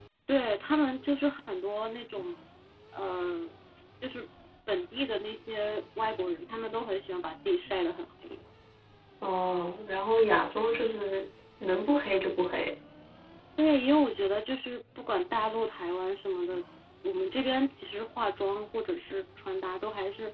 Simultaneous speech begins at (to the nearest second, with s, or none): none